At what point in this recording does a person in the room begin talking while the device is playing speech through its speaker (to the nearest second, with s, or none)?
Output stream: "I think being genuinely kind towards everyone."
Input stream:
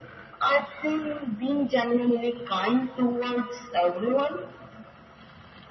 none